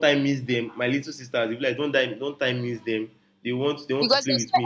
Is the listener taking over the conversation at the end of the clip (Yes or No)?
Yes